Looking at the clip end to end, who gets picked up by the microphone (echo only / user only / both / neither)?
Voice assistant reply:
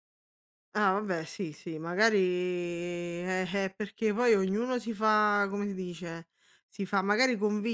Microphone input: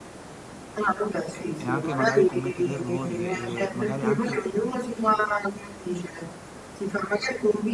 both